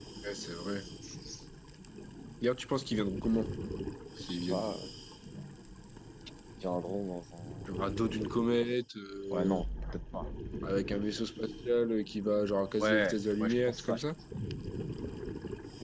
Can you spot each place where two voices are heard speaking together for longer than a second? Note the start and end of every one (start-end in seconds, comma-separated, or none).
12.8-14.0